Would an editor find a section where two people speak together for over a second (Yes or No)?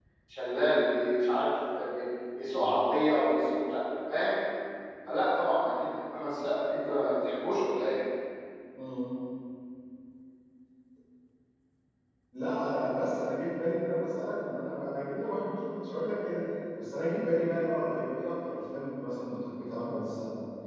No